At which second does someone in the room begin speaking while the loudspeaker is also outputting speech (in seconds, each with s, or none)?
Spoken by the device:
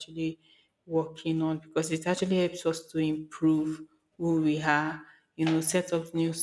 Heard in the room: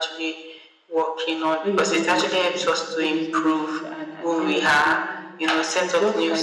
1.6 s